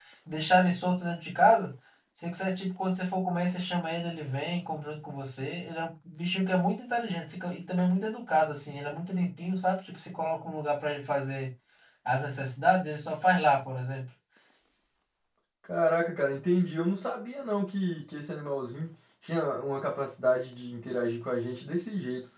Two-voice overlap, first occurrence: none

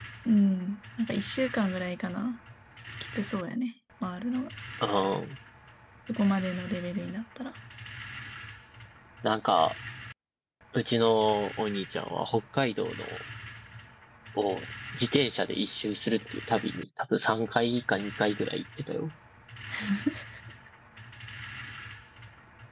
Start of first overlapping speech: none

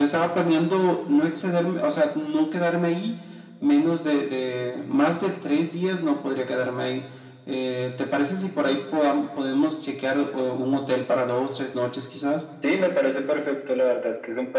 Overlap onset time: none

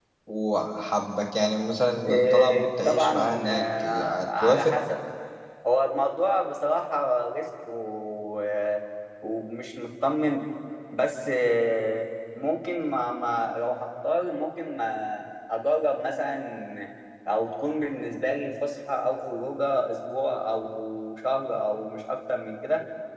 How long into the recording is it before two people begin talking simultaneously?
2.0 s

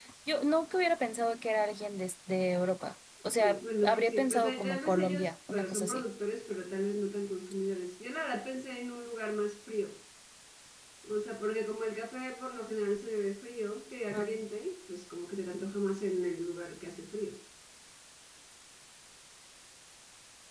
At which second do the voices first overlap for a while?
3.4 s

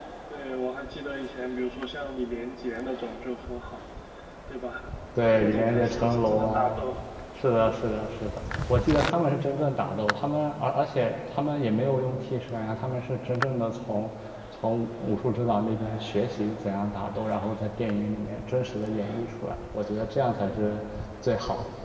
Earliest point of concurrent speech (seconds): 5.4 s

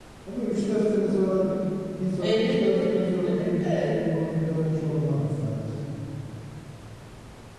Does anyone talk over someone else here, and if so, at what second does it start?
2.2 s

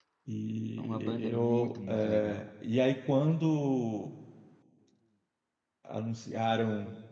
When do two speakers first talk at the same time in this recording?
0.8 s

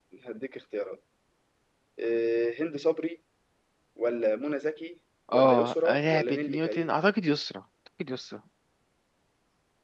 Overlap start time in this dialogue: 5.3 s

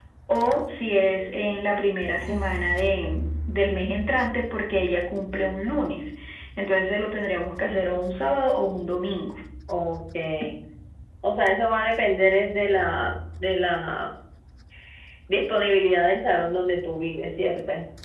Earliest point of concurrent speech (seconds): none

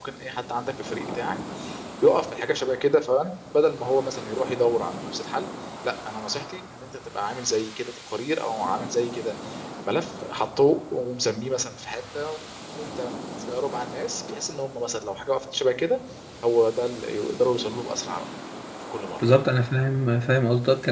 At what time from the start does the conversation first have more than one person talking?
none

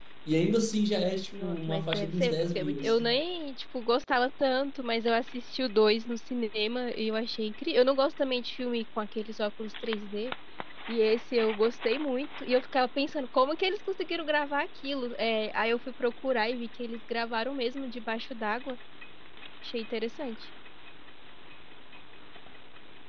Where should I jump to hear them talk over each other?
1.3 s

